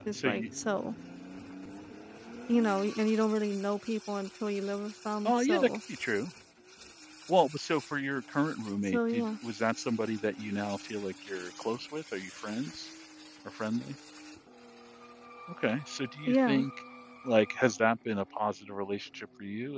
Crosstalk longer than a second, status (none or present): none